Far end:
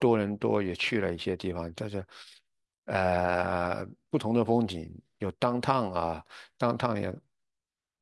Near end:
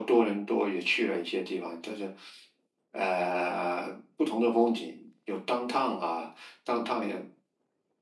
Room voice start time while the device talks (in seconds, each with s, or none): none